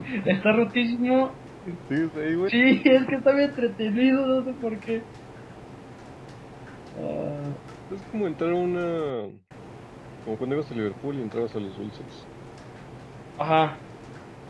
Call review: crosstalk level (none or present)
none